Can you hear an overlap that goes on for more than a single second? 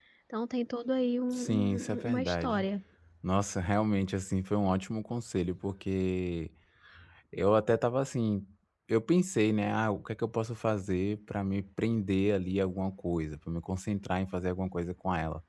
Yes, from 1.3 s

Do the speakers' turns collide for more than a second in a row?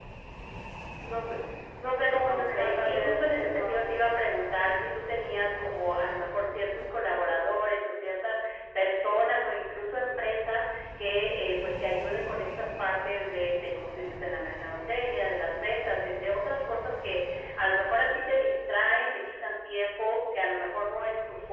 Yes, from 2.3 s

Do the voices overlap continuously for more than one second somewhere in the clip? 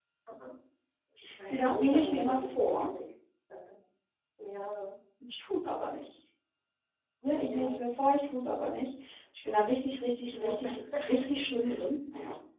Yes, from 1.5 s

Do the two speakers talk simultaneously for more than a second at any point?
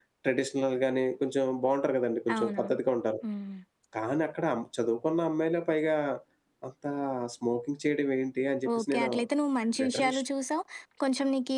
No

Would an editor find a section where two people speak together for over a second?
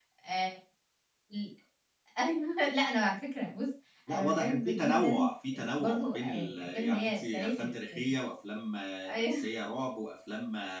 Yes, from 4.1 s

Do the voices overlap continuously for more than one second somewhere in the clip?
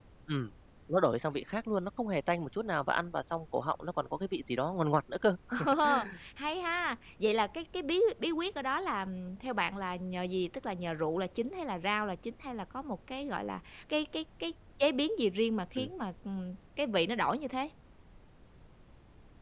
No

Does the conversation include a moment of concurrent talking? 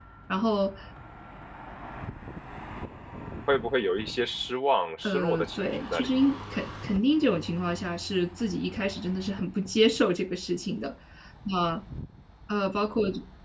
Yes, from 5.0 s

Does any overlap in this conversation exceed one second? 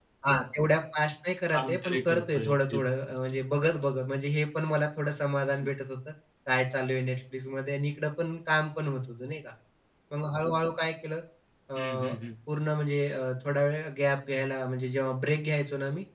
Yes, from 1.5 s

